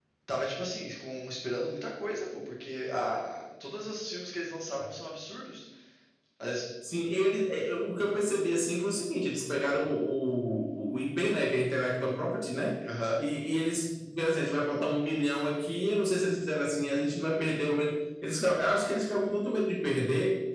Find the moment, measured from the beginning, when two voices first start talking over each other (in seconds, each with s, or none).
none